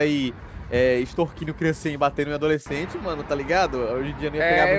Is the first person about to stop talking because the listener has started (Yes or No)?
Yes